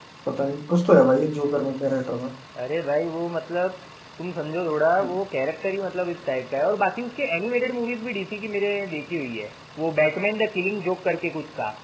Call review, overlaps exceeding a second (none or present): none